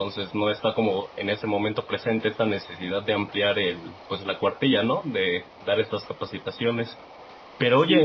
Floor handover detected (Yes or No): No